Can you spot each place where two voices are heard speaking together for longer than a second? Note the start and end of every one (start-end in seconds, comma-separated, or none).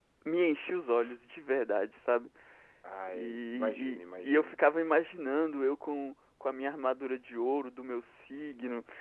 3.1-4.5